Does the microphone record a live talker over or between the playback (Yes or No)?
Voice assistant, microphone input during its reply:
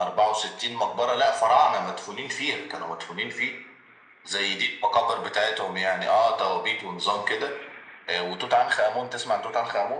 No